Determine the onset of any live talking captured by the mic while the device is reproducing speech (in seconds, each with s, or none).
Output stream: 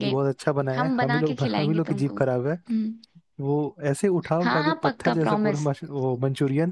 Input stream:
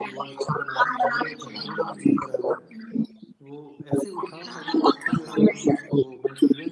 none